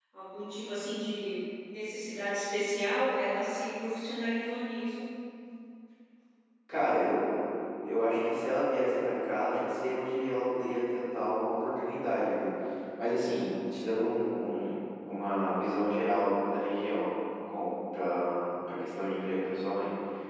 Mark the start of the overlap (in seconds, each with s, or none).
none